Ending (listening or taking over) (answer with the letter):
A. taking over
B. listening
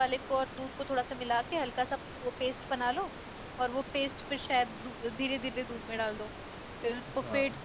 B